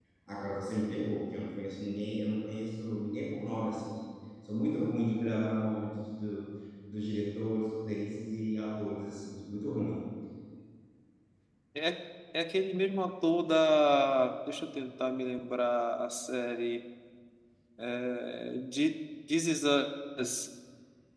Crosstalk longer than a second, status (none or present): none